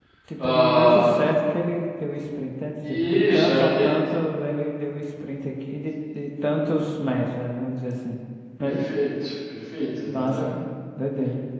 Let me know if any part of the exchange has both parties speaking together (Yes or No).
Yes